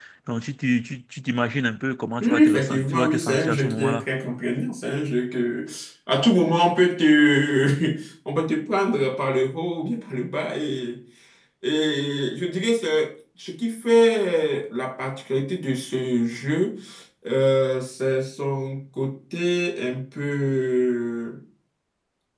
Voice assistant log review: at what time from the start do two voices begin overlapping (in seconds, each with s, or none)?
2.2 s